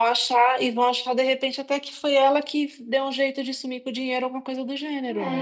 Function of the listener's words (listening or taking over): taking over